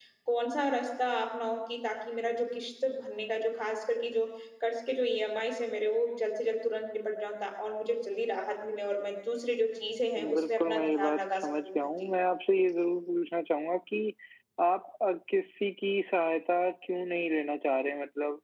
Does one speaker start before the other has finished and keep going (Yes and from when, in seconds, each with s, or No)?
Yes, from 10.2 s